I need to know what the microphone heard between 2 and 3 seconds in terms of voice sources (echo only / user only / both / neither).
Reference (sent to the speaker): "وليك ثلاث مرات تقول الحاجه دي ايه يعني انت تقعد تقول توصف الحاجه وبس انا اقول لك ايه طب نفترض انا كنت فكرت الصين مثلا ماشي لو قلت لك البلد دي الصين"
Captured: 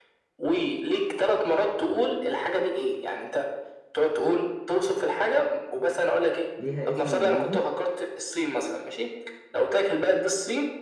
echo only